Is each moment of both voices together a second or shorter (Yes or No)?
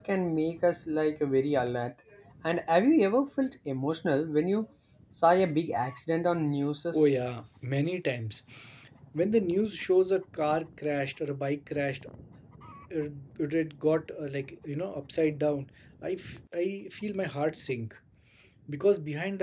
Yes